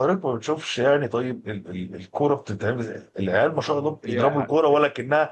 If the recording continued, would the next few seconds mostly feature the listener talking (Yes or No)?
No